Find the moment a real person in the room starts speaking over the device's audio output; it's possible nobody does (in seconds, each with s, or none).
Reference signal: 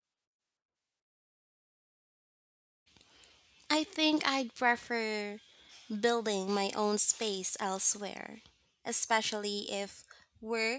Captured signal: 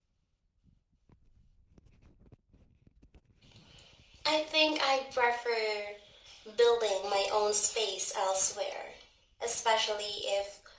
none